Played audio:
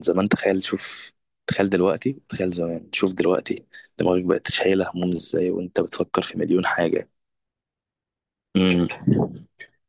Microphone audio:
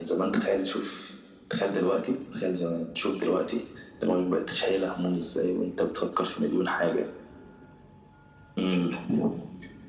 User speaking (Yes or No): No